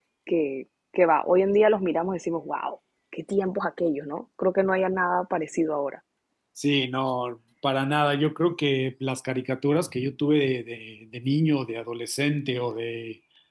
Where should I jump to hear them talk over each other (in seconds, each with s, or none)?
none